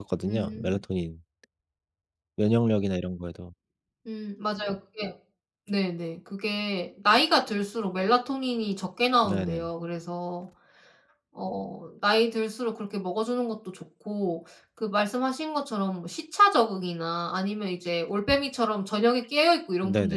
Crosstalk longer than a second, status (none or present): none